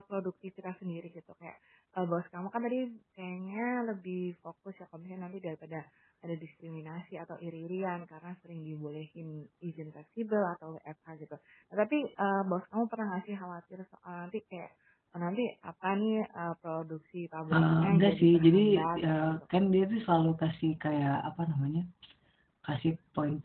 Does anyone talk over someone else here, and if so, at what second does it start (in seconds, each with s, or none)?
17.5 s